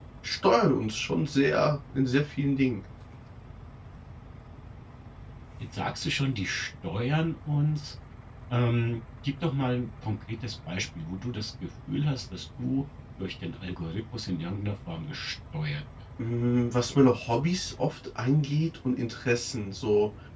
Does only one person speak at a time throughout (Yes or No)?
Yes